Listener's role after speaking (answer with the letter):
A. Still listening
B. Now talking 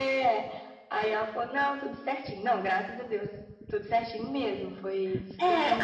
B